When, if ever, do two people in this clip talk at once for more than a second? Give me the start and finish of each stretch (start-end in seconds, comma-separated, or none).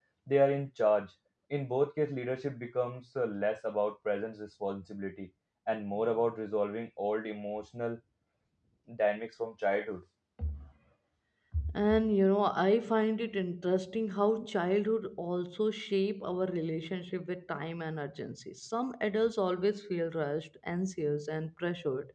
none